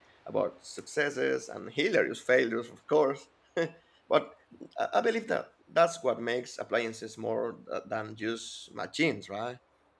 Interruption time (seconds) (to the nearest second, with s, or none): none